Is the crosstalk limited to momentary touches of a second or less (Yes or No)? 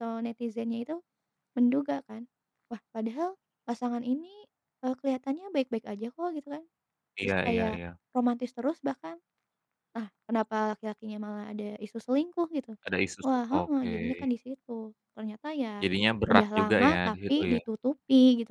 No